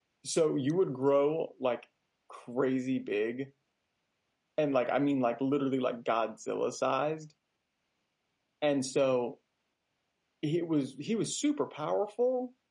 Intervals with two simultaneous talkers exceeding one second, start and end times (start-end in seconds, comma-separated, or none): none